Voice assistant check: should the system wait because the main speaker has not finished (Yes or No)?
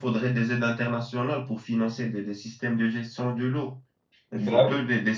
Yes